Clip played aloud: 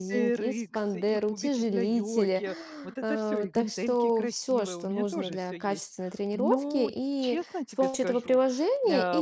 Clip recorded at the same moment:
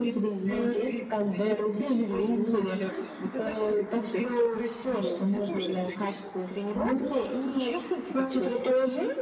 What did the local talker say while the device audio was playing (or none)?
none